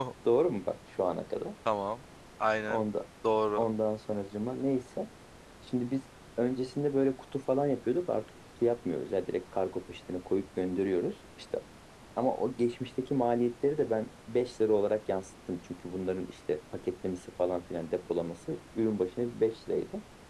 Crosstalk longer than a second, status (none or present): none